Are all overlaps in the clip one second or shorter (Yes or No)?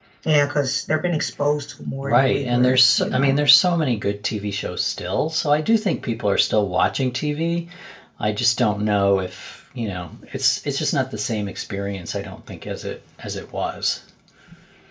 No